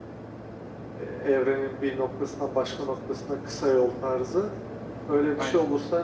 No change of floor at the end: Yes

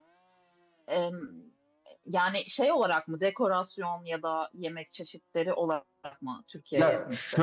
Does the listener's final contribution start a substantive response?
Yes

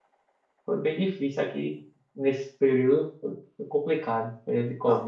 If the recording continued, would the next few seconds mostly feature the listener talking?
Yes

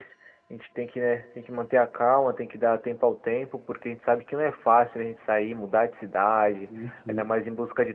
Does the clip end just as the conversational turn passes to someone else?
No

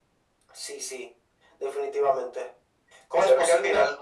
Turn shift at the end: Yes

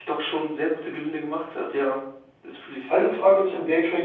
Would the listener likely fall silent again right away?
No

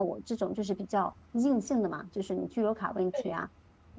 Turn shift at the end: No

